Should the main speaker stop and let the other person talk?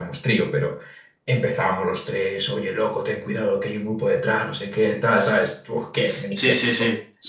Yes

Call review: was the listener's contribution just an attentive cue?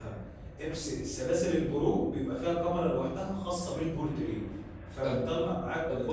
No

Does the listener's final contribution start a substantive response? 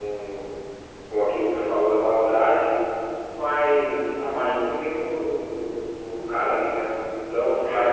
No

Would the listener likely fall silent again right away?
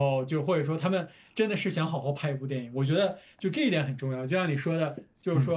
Yes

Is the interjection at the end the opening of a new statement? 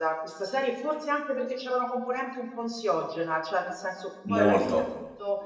No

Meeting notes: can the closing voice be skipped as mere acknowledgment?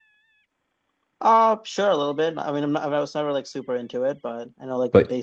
No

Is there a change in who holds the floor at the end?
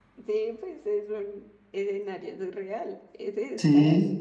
Yes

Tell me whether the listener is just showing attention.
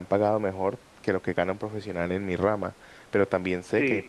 Yes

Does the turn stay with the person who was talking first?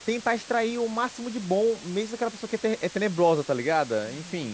No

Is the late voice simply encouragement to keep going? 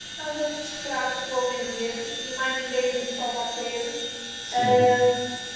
Yes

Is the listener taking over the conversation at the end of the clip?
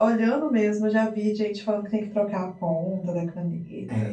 Yes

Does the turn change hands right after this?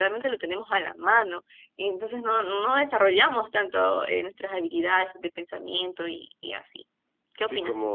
Yes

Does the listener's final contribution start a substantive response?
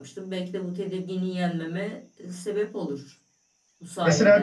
Yes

